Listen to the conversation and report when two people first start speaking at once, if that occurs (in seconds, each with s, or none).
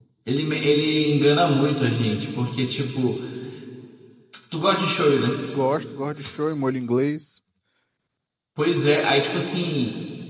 none